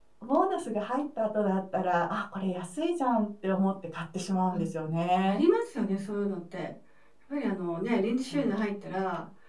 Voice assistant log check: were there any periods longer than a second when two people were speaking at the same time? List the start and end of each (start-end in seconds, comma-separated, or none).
none